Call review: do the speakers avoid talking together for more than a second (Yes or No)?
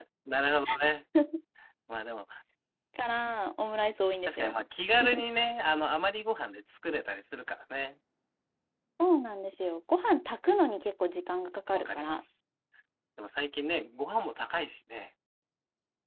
Yes